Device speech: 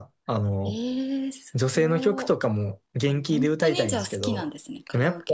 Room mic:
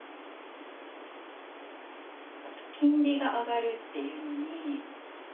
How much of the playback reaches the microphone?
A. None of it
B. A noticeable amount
A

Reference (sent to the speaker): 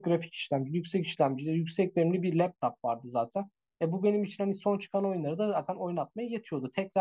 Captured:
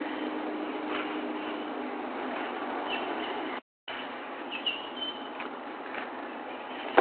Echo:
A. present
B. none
B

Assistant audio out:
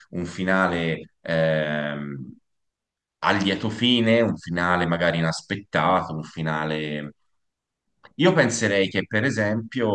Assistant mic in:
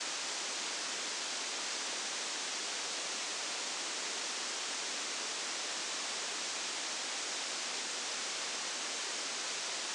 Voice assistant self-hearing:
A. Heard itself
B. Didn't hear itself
B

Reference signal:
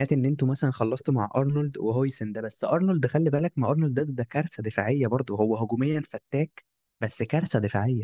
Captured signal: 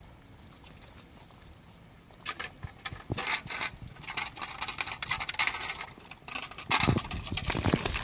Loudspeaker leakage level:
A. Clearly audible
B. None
B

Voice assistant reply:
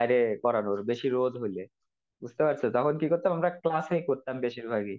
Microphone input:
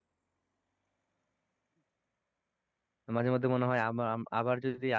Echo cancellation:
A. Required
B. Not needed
B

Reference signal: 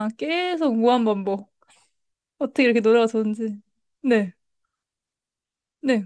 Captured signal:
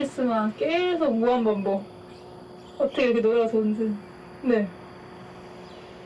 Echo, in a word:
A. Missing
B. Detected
B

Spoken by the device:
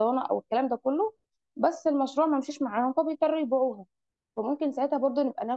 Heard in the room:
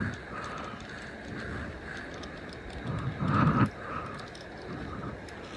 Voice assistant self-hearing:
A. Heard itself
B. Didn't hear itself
B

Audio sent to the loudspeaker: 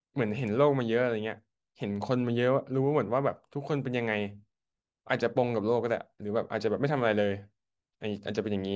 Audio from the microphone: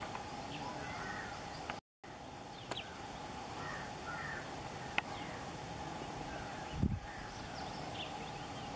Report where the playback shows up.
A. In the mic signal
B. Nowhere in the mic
B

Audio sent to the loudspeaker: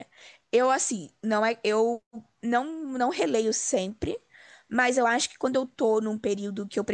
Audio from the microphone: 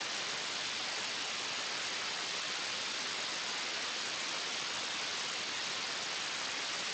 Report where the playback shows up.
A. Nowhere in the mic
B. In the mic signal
A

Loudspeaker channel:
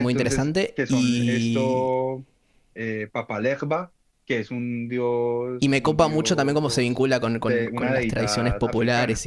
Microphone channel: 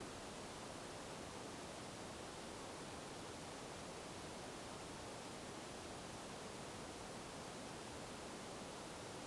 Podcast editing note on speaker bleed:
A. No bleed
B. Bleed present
A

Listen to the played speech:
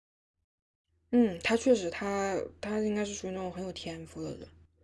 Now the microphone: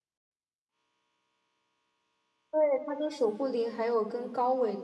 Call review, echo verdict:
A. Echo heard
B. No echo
B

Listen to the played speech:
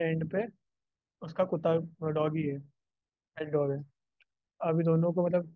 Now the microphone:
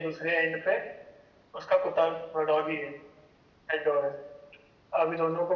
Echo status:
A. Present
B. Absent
A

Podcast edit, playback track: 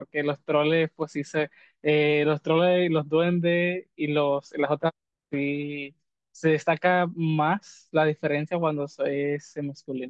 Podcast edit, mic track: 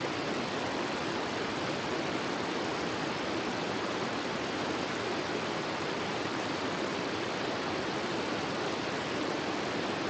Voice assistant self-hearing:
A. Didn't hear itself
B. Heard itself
A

